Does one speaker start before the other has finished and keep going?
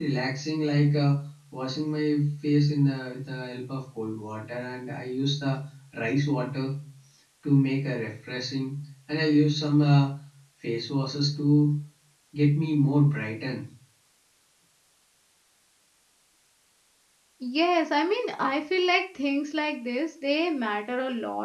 No

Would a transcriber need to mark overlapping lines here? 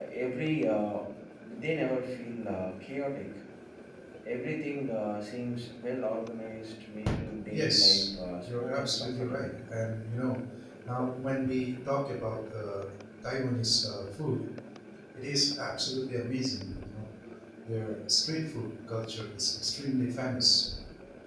Yes, from 7.5 s

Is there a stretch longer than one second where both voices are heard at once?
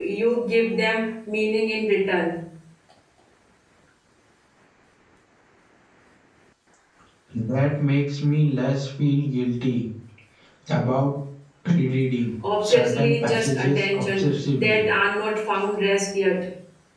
Yes, from 12.4 s

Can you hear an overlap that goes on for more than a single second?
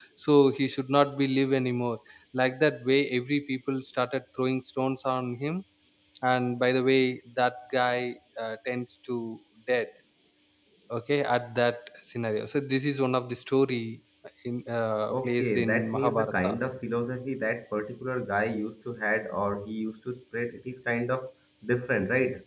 Yes, from 15.1 s

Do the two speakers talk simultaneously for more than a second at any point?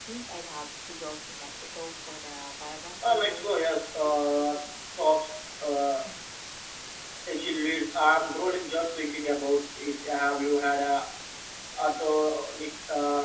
Yes, from 3.0 s

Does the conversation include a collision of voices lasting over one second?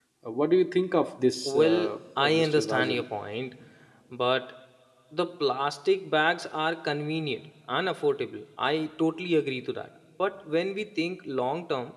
Yes, from 1.4 s

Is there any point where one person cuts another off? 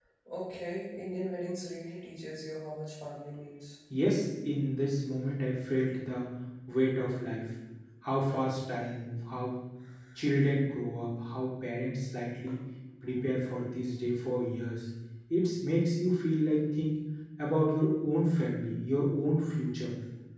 No

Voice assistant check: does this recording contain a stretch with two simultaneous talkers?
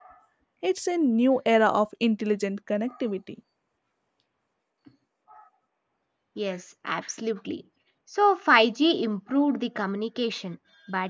No

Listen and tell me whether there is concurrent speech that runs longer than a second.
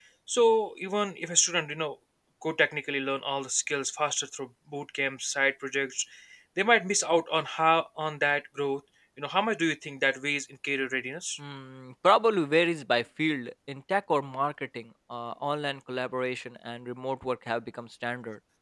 No

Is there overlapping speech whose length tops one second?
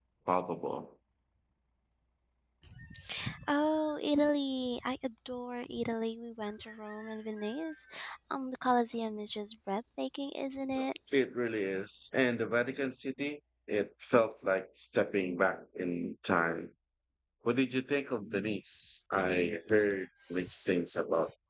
No

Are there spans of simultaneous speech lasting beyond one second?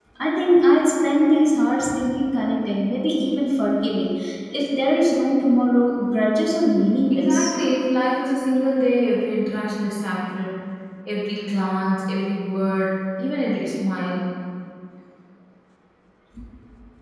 No

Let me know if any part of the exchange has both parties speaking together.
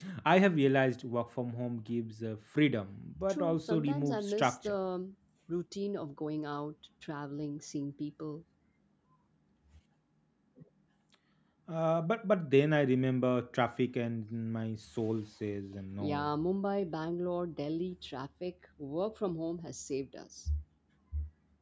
Yes, from 3.3 s

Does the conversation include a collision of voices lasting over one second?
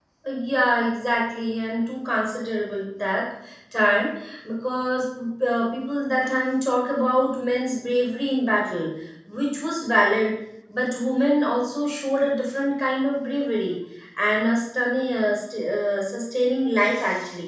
No

